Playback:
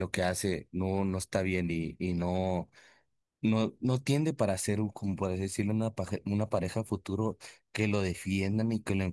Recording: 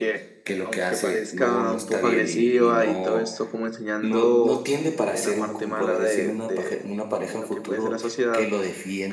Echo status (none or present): present